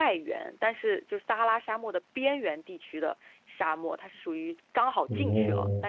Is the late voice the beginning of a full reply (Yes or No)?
No